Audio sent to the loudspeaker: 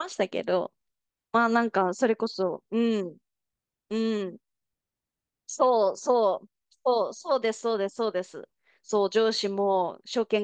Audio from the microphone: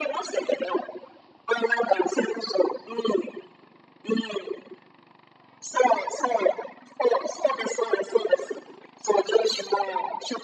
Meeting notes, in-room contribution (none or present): none